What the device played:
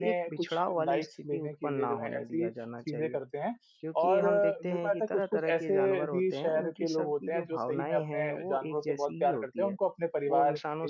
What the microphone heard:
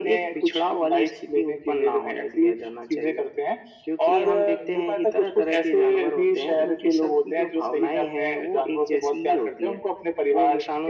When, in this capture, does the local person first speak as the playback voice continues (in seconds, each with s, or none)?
none